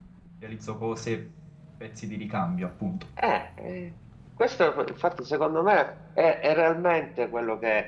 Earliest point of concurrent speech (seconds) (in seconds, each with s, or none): none